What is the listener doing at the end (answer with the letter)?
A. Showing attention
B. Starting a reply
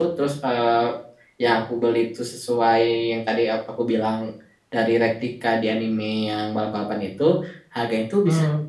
A